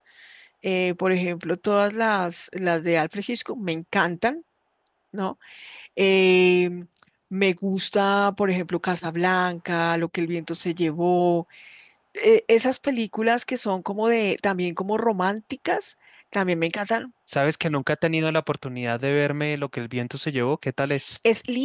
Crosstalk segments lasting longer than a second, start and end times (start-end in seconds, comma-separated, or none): none